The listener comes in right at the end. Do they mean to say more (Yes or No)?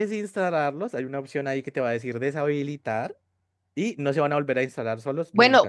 Yes